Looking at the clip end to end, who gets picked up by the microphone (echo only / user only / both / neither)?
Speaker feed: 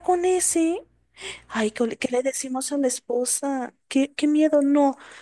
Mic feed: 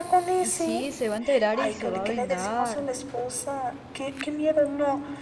both